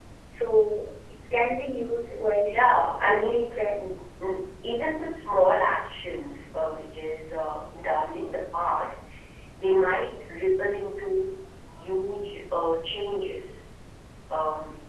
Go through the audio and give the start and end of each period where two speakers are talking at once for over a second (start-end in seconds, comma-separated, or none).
2.5-3.8